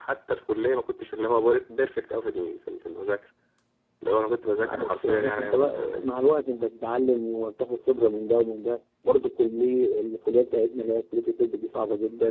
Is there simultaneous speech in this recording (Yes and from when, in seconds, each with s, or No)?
Yes, from 4.6 s